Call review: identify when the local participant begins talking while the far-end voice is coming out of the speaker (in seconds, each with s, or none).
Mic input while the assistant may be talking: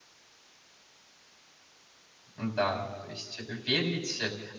2.4 s